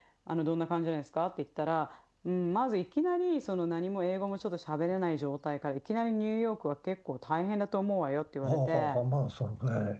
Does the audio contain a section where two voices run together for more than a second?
No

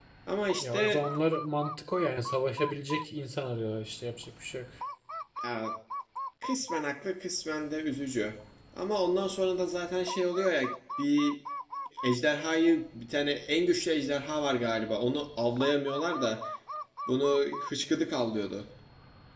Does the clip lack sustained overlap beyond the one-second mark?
Yes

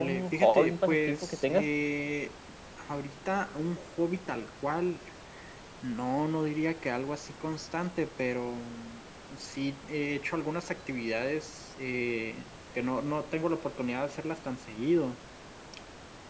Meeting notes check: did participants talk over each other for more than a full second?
Yes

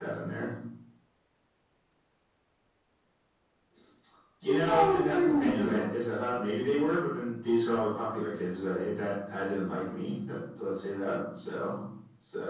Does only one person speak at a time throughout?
No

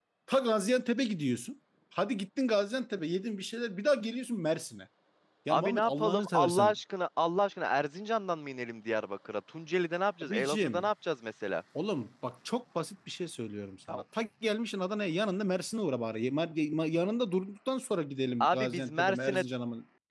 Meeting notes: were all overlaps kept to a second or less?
No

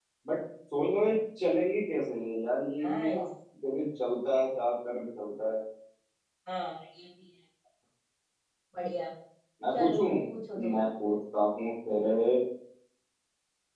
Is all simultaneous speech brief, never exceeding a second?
Yes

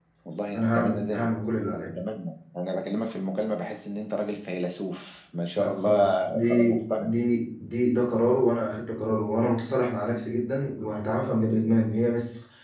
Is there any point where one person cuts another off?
Yes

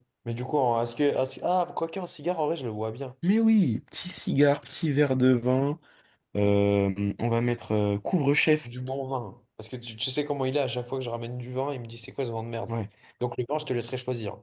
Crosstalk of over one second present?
No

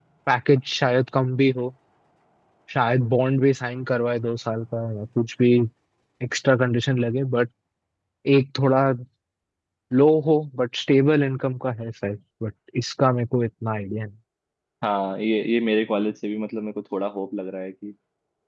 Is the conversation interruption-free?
Yes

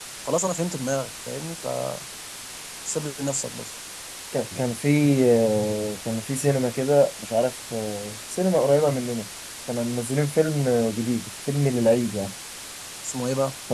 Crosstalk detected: No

